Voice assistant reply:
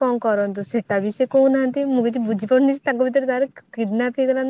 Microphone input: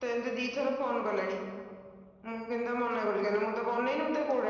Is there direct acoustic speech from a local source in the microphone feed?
Yes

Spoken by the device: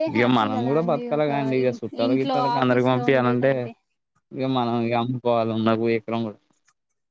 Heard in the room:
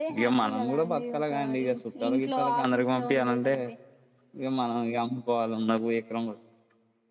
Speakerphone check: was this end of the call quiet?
Yes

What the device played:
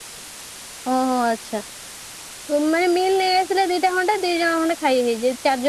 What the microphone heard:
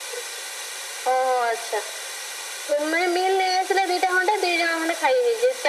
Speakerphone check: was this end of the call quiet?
Yes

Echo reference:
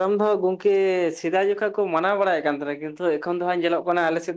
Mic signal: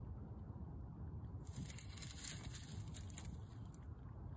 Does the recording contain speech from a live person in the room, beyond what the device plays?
No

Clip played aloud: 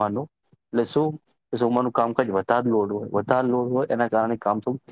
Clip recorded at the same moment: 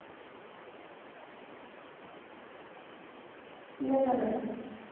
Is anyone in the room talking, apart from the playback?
Yes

